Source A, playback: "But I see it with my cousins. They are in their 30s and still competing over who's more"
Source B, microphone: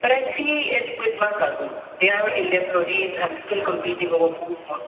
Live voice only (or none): none